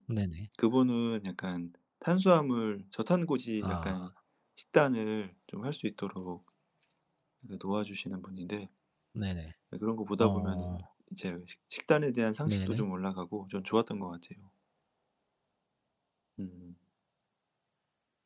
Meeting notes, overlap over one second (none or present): none